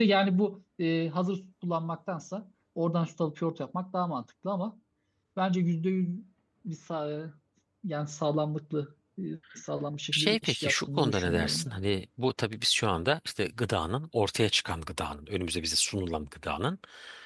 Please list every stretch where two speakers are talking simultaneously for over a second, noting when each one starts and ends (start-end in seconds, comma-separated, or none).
10.1-11.8